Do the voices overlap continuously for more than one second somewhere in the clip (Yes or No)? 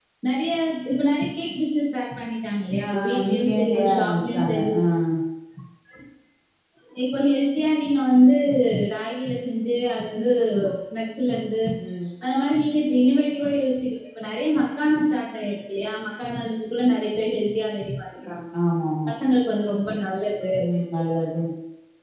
Yes